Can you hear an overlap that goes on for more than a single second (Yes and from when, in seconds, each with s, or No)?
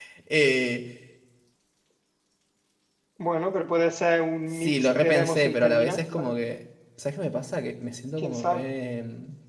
Yes, from 4.5 s